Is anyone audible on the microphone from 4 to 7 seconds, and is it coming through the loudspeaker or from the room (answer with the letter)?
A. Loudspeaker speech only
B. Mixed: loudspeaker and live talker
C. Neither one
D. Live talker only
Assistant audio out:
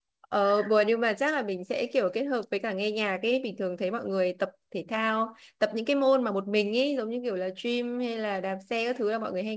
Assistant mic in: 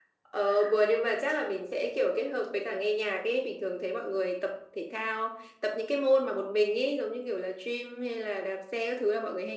A